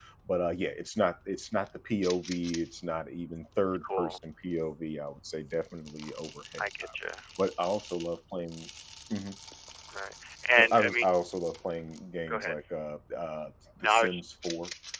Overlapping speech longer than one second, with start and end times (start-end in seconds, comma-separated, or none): none